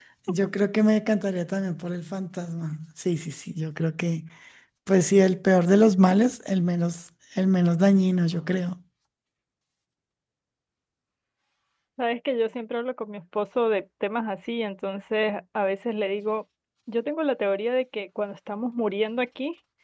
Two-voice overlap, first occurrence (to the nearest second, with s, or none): none